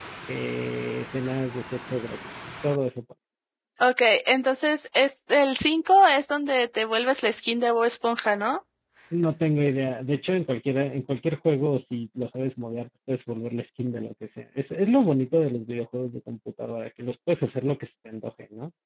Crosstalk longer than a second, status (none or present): none